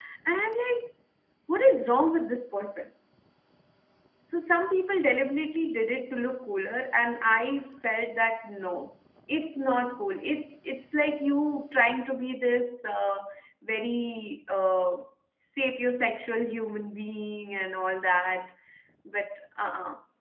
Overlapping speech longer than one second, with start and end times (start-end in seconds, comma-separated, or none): none